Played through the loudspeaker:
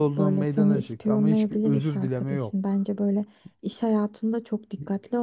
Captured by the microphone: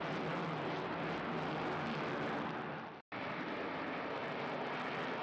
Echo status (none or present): none